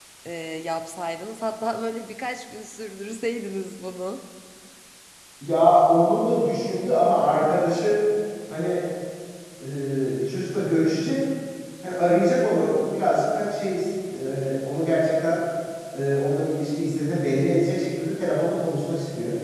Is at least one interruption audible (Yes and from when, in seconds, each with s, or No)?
No